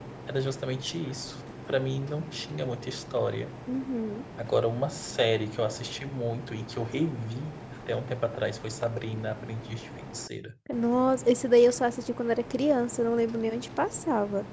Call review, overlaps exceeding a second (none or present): none